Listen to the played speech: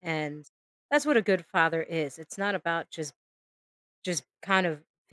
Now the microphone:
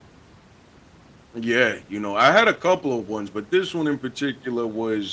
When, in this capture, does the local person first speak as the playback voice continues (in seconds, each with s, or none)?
1.3 s